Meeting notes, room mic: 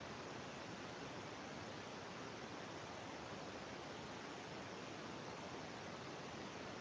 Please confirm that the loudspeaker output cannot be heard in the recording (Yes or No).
Yes